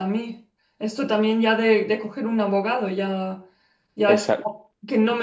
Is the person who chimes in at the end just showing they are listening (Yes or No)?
Yes